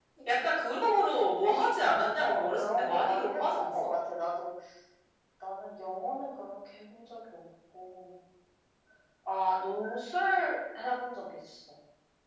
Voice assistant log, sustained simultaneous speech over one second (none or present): present